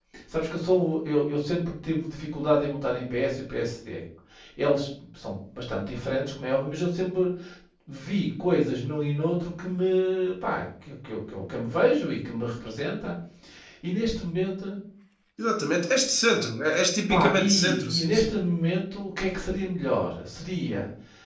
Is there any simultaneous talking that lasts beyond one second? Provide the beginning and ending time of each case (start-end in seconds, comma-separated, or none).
17.1-18.3